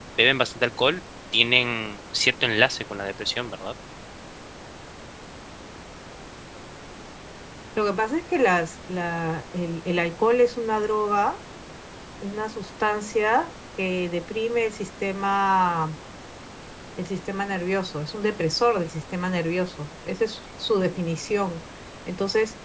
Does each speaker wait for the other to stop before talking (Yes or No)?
Yes